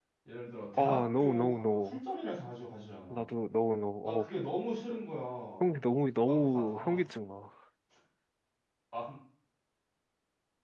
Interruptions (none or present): present